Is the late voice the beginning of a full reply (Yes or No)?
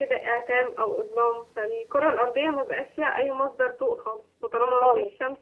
No